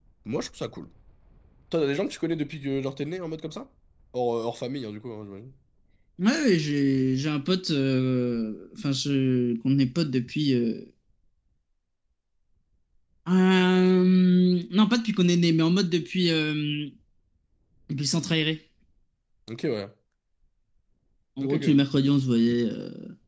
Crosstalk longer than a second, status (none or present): none